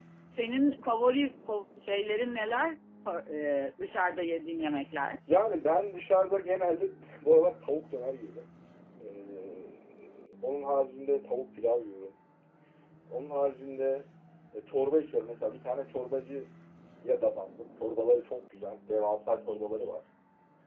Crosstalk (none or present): none